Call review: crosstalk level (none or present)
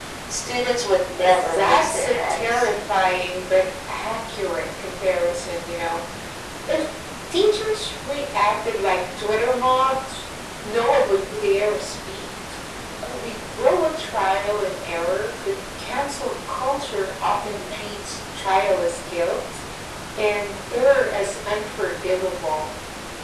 present